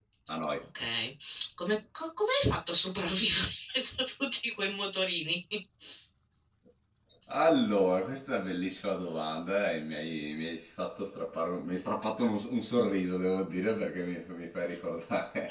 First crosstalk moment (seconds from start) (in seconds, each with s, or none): none